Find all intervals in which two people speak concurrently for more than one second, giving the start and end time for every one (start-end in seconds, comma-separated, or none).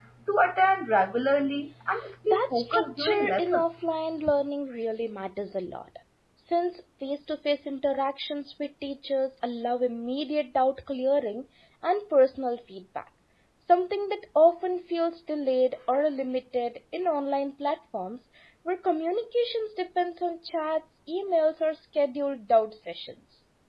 2.3-3.8